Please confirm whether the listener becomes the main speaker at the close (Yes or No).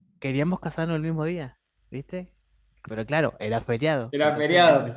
No